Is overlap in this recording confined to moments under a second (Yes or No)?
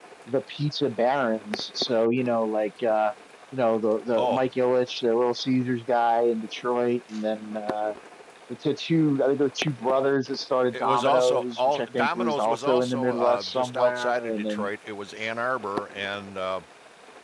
No